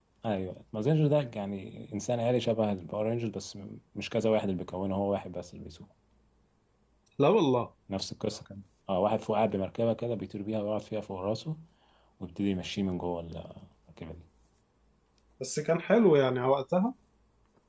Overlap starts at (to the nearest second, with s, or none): none